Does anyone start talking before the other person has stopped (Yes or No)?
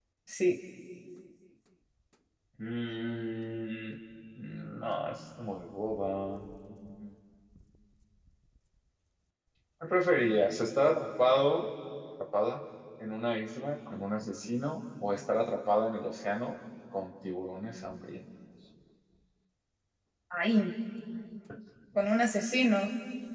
No